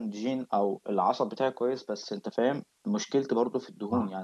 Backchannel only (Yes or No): Yes